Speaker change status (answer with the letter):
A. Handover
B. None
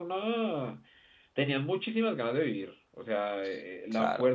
B